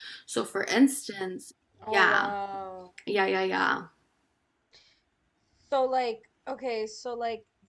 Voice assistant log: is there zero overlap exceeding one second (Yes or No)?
Yes